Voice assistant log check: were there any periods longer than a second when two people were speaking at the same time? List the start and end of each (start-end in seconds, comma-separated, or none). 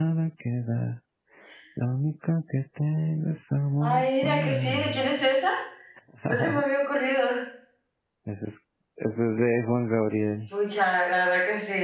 3.8-5.1